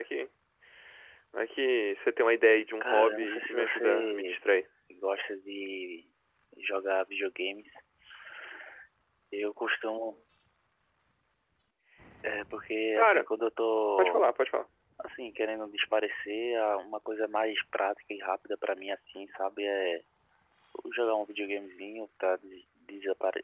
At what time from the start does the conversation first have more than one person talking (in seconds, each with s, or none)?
2.8 s